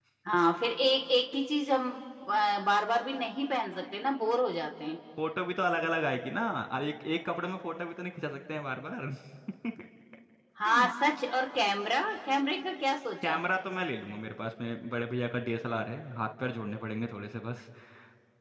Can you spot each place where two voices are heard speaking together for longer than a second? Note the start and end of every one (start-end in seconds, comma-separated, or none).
none